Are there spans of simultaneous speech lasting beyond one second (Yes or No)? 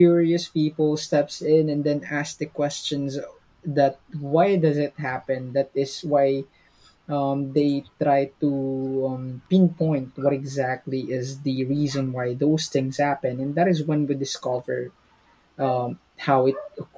No